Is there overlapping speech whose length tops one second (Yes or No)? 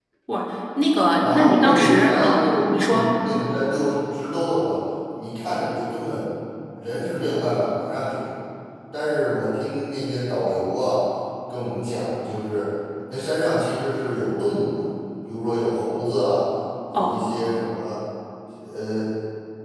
Yes